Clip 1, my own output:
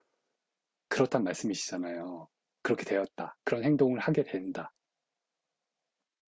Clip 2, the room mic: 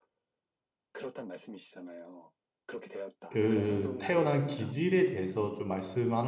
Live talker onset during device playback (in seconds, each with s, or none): 3.3 s